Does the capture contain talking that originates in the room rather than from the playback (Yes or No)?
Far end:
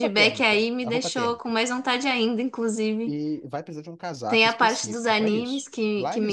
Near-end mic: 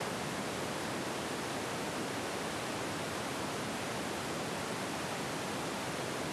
No